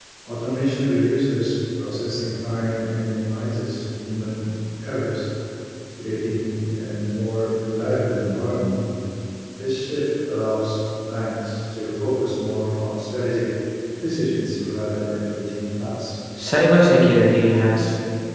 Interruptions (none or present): none